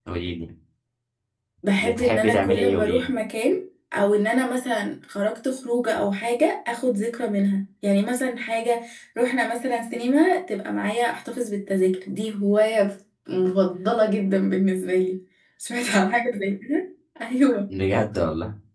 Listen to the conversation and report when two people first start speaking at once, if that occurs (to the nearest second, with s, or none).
2 s